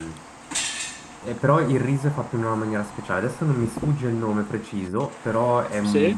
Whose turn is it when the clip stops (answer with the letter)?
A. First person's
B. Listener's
A